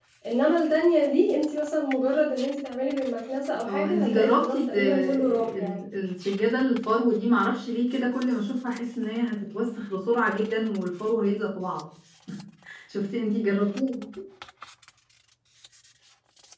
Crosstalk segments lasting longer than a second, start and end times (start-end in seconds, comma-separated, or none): 3.6-5.8